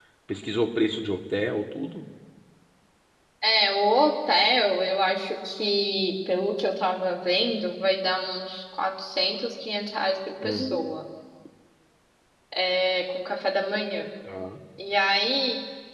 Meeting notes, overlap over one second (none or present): none